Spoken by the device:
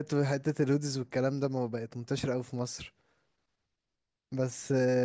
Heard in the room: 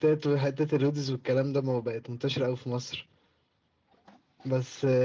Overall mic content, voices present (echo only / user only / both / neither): echo only